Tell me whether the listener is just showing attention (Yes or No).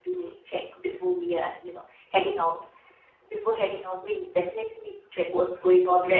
No